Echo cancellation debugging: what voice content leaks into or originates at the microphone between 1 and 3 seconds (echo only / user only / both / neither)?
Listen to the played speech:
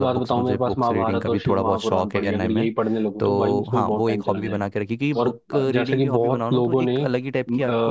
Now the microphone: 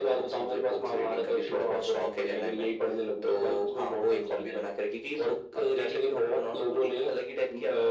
echo only